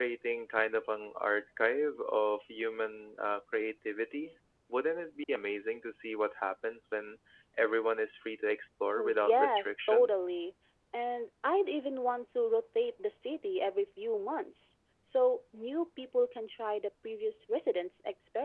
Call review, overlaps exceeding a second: present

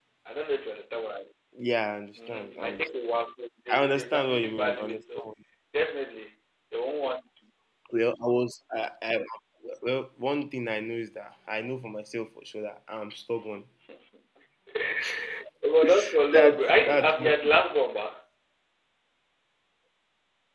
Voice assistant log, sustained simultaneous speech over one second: present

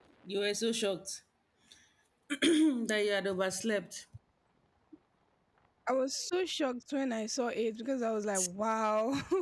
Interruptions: none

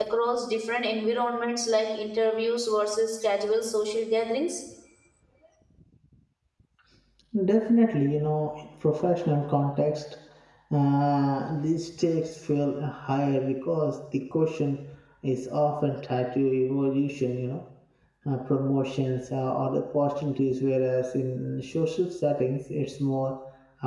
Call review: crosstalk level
none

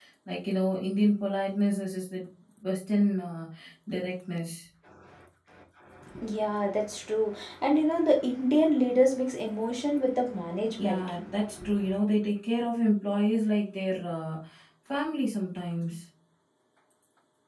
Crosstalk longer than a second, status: none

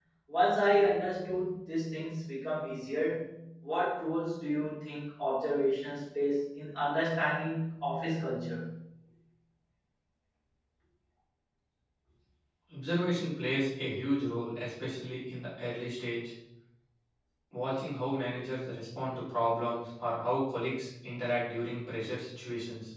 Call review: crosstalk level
none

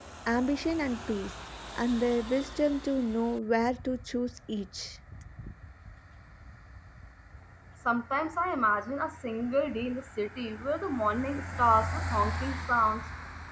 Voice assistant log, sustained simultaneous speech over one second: none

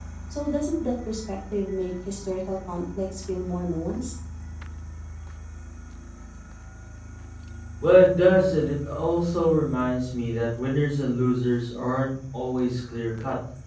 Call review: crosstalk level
none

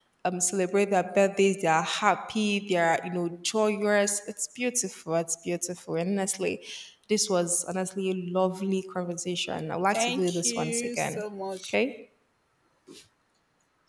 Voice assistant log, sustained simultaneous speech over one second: present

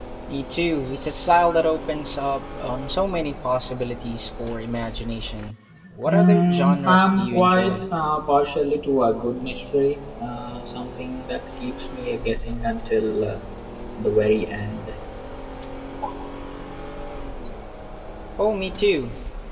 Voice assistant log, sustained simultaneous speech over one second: present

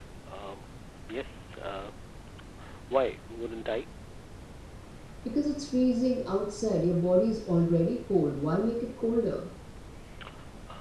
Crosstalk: none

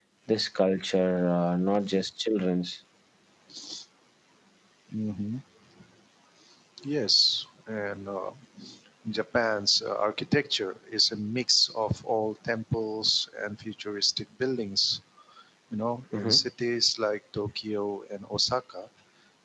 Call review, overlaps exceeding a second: none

